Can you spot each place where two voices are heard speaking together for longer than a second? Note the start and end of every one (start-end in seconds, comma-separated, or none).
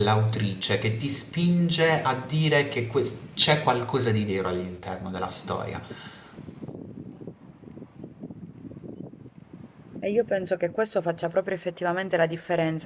none